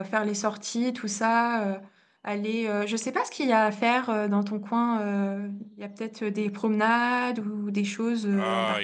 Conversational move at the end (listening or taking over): taking over